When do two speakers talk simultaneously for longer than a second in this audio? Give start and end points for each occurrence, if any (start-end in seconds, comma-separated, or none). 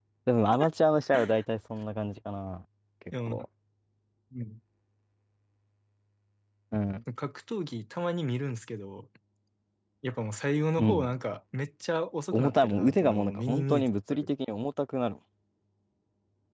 12.3-14.3